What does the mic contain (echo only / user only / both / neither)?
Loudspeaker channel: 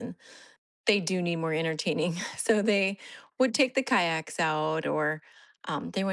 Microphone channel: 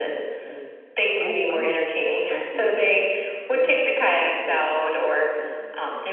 both